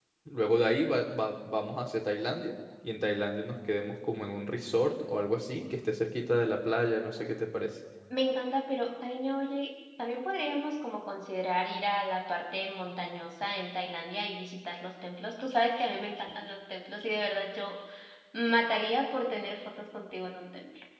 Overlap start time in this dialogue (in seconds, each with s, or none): none